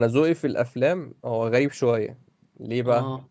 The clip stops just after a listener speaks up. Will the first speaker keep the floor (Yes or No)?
Yes